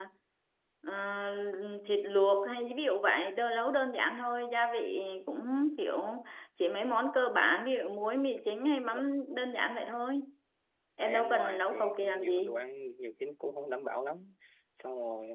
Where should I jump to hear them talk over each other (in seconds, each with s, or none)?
11.0 s